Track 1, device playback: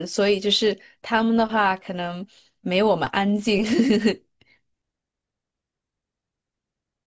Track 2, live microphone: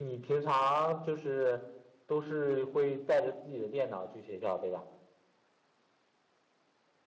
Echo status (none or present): none